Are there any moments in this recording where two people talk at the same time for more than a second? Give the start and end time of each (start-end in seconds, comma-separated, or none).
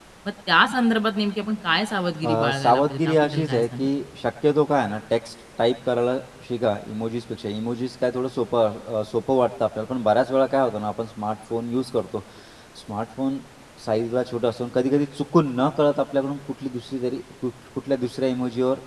2.2-3.9